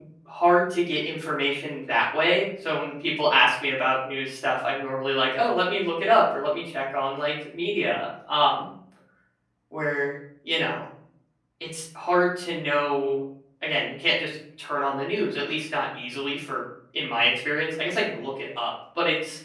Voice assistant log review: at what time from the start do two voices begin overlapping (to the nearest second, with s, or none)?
none